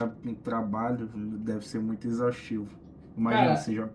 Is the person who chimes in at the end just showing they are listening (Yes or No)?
Yes